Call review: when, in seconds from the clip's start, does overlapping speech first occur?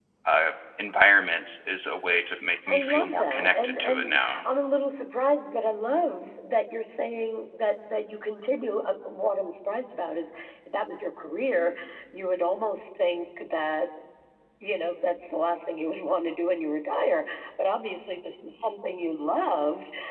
2.7 s

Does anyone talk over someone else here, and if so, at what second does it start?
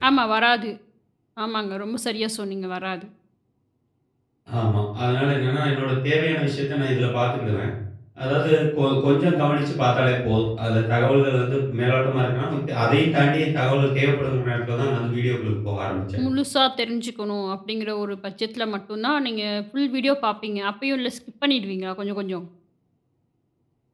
none

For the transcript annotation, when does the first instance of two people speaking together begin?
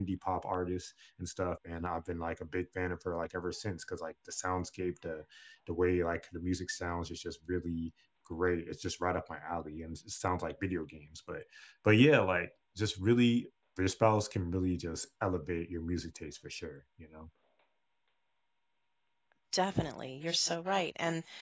none

